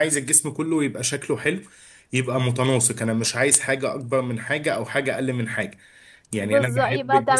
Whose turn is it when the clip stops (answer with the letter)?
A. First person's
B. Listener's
B